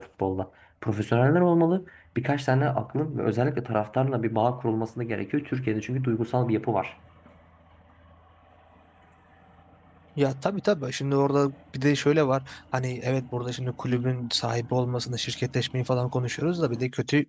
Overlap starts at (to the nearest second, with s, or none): none